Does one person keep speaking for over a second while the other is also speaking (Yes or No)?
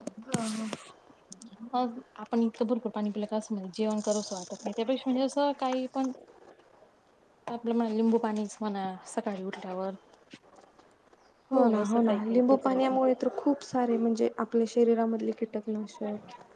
Yes